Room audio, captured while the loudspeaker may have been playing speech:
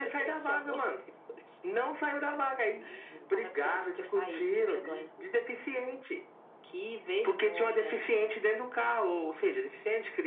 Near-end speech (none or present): none